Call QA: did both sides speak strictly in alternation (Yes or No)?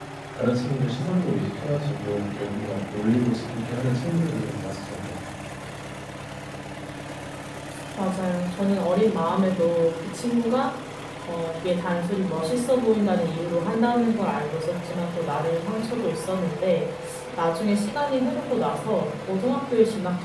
Yes